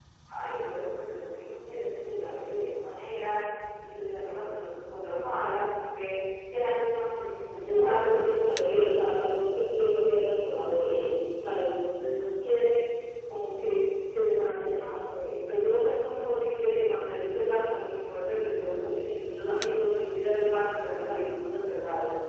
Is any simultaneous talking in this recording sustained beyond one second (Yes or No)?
Yes